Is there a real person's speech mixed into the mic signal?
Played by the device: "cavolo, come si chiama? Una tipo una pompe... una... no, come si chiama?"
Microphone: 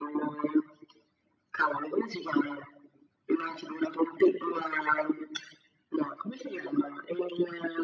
No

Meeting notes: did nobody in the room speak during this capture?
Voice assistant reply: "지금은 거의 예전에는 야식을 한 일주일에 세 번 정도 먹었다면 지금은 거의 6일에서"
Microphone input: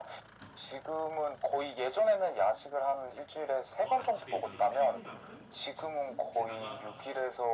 No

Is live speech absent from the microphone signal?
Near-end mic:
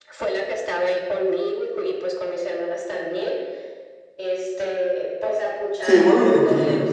No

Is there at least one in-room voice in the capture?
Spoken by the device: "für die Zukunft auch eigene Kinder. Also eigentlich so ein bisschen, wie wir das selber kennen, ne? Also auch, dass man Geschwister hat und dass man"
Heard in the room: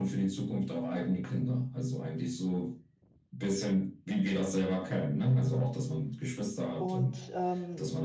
Yes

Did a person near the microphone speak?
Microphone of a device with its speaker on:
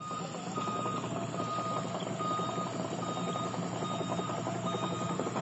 No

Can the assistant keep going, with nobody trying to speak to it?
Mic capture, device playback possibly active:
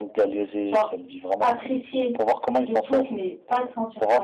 No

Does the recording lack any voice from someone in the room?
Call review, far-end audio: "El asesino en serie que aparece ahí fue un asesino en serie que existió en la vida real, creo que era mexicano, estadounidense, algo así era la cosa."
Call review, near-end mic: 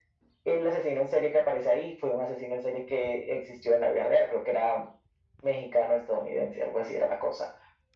Yes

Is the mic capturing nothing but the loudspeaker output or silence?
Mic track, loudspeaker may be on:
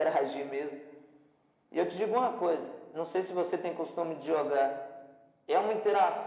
Yes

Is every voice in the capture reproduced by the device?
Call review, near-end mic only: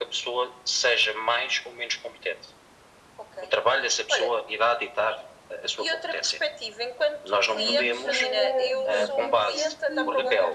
No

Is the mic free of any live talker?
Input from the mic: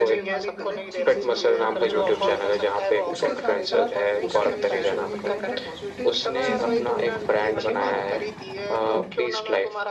No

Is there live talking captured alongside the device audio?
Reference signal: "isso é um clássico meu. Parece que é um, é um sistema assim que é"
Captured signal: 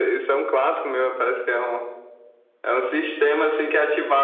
No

